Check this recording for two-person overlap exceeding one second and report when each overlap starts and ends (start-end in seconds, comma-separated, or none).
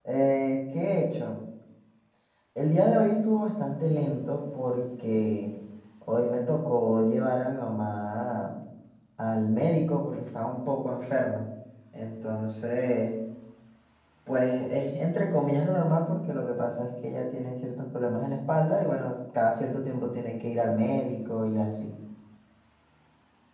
none